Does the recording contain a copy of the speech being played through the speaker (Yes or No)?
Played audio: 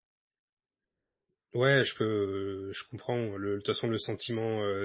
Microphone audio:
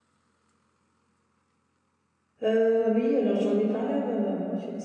No